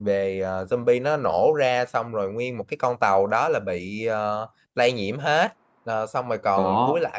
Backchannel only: Yes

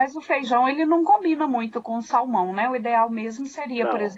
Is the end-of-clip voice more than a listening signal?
No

